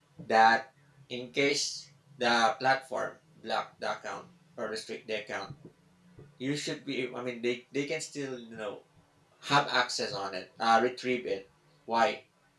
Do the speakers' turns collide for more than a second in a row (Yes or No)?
No